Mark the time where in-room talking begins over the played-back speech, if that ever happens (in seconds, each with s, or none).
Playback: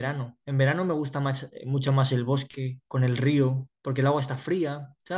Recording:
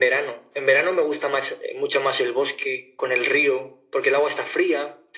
none